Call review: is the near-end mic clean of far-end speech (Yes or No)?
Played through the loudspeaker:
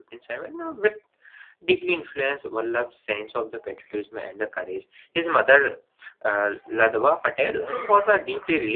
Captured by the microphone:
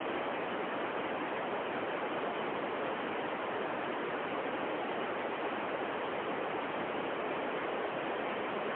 Yes